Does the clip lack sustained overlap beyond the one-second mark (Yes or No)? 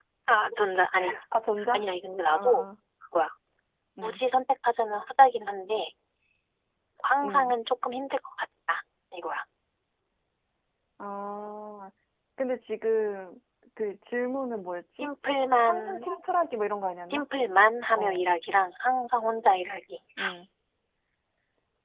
Yes